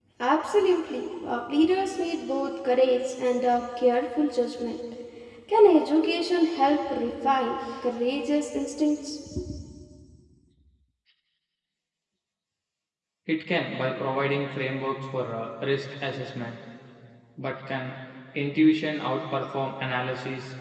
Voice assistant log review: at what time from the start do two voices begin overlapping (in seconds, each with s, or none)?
none